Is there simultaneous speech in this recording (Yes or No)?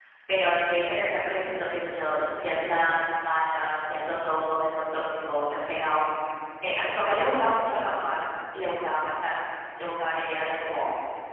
No